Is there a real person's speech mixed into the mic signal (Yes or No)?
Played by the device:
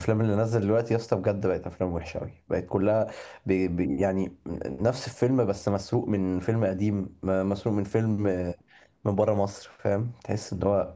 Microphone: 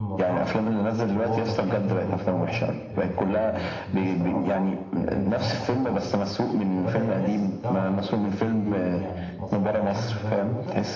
Yes